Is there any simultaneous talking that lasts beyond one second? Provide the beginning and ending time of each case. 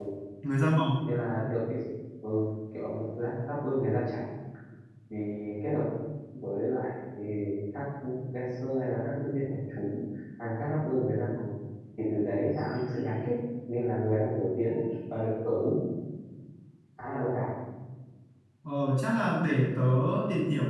none

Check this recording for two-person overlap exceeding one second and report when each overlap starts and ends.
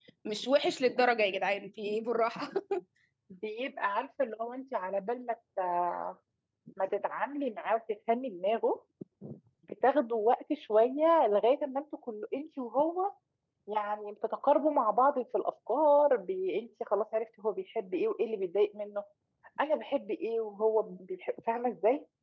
none

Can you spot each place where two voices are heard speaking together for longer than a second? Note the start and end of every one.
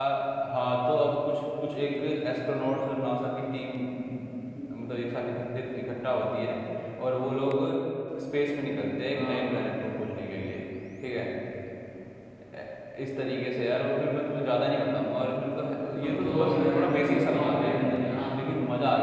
16.2-18.0

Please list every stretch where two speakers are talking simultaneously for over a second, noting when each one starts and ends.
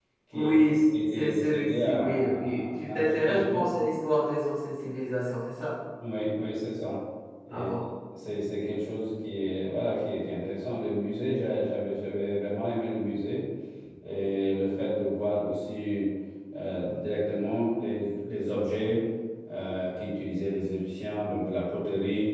0.9-3.7

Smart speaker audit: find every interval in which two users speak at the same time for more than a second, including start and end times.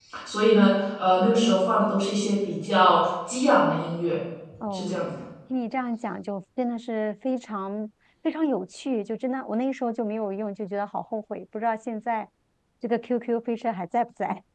none

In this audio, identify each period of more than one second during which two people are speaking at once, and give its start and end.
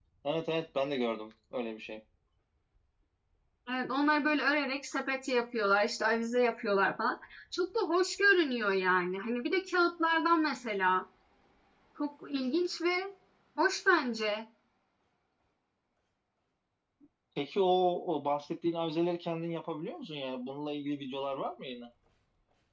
none

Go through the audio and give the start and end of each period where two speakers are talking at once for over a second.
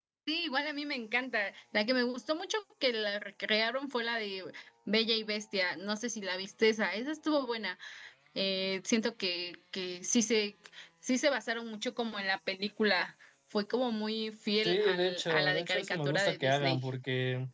14.6-16.8

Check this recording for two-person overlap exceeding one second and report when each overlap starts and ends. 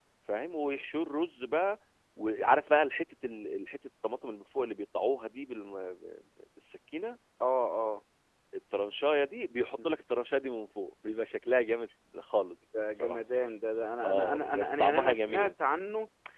14.0-15.5

